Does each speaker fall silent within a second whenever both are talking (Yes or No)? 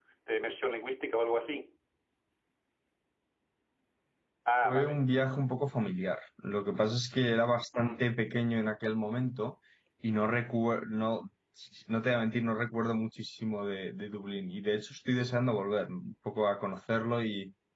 Yes